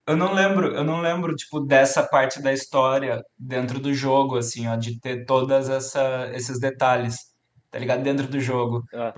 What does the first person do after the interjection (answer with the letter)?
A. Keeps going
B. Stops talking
A